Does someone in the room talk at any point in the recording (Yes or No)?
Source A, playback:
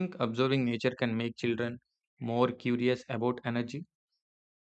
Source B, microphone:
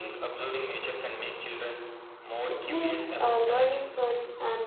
Yes